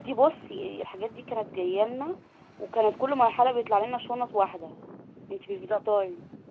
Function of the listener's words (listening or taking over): taking over